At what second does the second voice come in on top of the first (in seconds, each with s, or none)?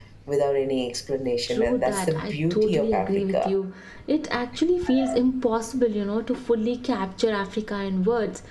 1.5 s